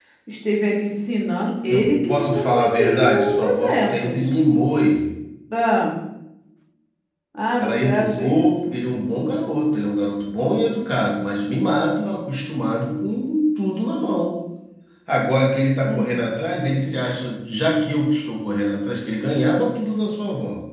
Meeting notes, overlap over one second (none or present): present